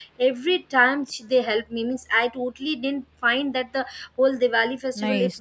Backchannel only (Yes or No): No